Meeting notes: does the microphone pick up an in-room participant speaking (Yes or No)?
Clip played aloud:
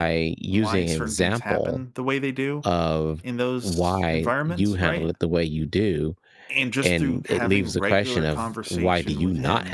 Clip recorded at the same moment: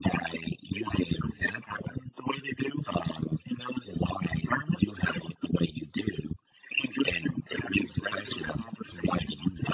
No